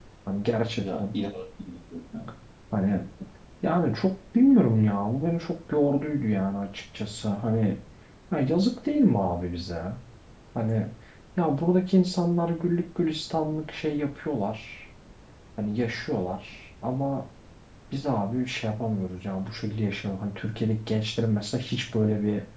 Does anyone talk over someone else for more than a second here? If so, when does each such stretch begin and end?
none

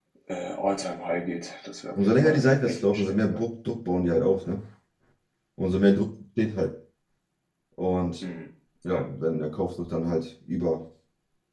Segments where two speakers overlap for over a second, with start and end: 2.0-3.4

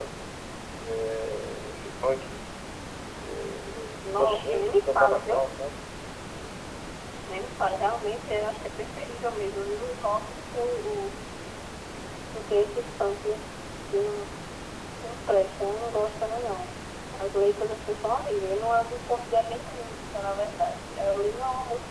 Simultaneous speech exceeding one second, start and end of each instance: 4.1-5.4

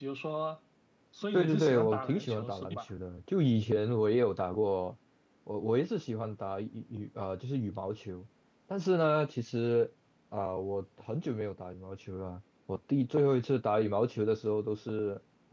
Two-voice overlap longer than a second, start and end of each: 1.3-2.9

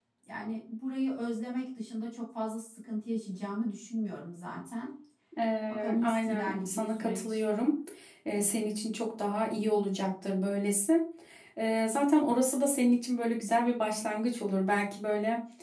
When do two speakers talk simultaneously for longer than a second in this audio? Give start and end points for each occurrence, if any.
5.7-7.4

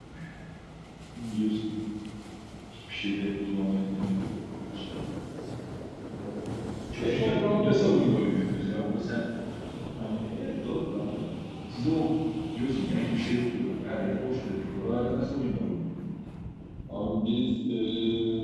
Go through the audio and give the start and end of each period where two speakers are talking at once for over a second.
7.0-8.2

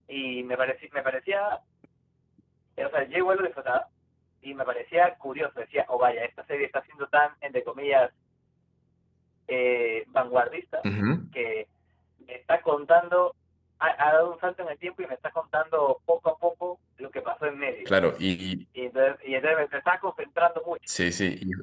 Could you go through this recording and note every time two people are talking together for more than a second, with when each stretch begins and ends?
none

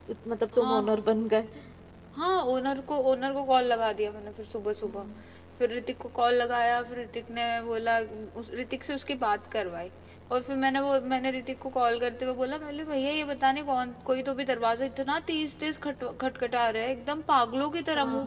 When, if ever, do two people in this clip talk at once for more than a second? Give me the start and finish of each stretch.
none

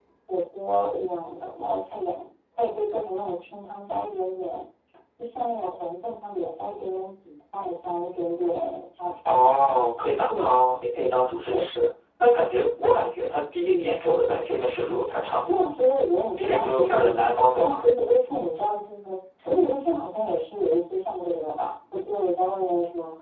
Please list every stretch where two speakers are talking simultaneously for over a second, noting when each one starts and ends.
16.4-17.8

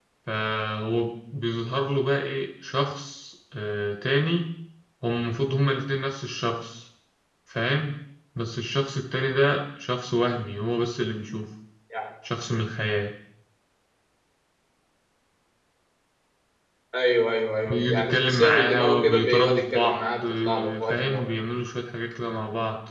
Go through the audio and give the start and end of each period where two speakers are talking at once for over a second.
17.6-21.3

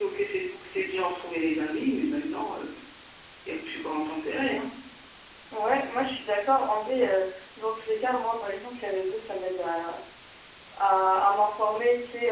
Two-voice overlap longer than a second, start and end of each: none

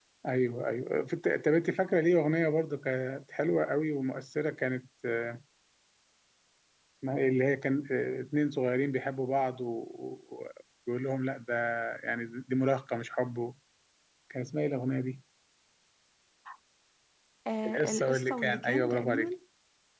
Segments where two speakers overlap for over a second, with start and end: 17.7-19.3

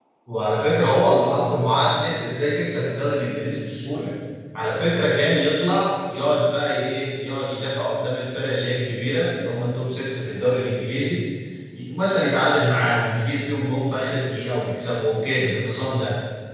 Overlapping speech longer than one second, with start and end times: none

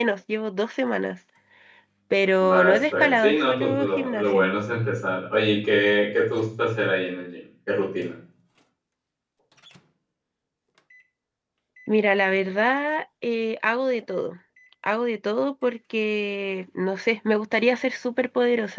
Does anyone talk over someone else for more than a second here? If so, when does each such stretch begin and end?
2.4-4.5

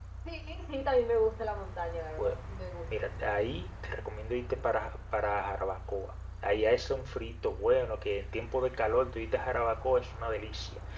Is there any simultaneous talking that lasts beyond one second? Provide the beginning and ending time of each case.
none

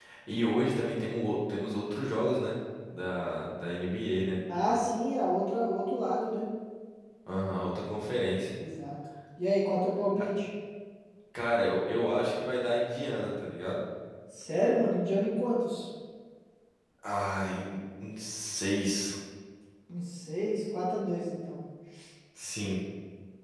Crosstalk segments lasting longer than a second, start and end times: none

